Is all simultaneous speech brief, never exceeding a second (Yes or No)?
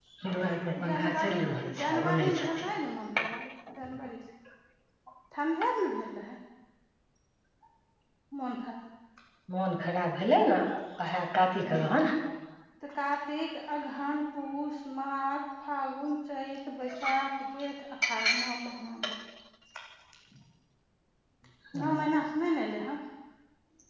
No